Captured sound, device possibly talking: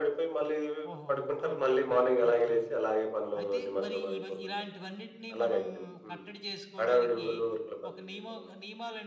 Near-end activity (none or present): present